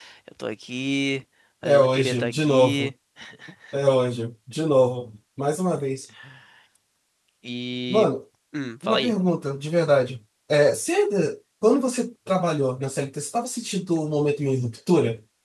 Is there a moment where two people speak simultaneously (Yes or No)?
Yes